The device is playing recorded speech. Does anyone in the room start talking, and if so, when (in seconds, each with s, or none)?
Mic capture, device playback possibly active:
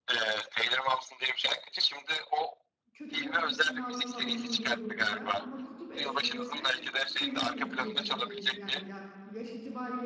2.9 s